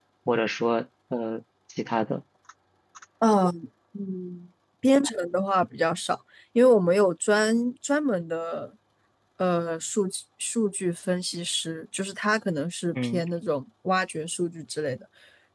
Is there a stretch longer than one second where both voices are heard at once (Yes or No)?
No